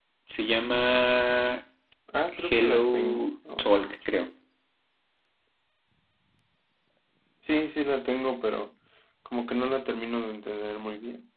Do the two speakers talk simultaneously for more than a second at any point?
Yes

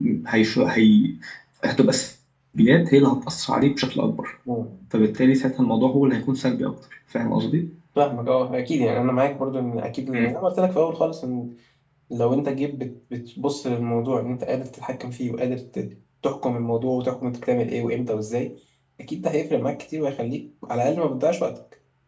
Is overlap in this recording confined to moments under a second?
Yes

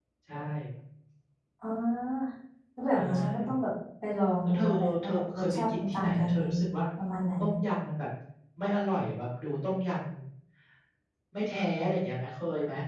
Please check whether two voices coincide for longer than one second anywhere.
Yes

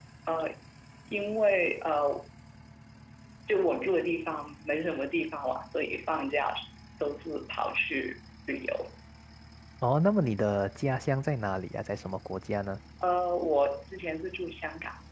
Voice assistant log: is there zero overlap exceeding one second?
Yes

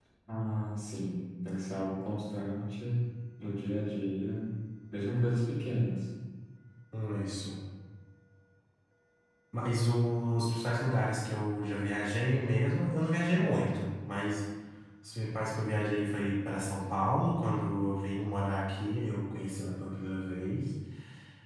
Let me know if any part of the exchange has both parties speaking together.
No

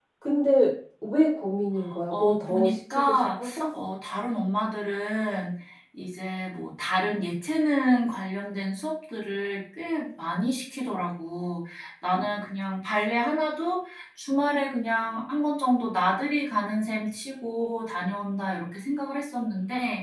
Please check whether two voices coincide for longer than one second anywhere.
Yes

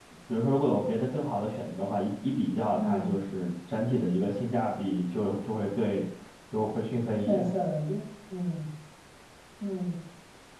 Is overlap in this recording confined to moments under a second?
Yes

